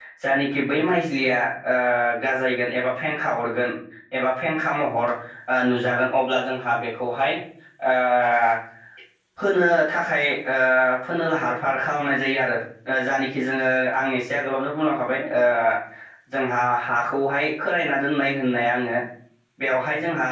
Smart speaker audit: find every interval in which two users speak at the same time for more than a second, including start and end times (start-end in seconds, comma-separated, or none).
none